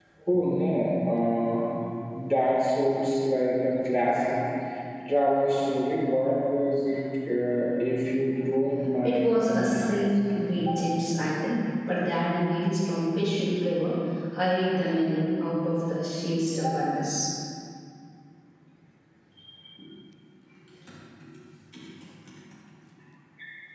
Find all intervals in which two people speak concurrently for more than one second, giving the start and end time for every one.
9.0-10.5

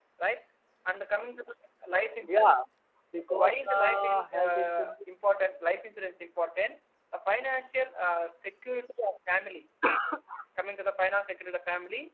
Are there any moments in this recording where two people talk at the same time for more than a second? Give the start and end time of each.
3.3-4.9

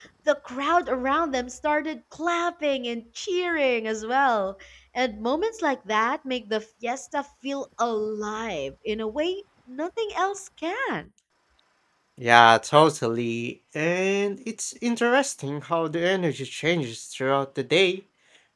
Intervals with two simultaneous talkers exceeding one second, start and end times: none

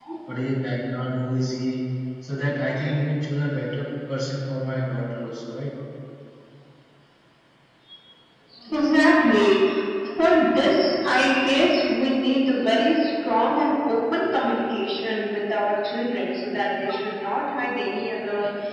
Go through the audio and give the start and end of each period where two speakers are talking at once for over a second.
none

